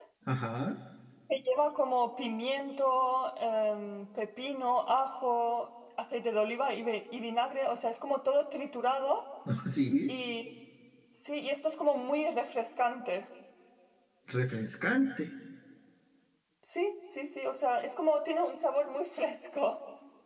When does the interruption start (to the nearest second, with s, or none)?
none